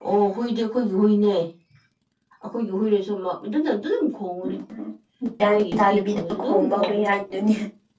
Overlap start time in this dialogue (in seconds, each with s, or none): 5.5 s